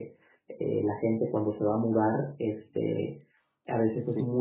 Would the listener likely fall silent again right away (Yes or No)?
Yes